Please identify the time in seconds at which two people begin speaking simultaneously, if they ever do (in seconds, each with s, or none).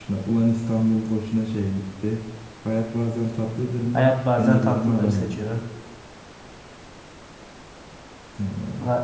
3.9 s